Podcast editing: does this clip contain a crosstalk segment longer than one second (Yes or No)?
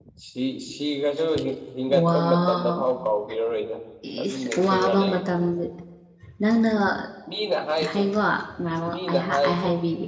Yes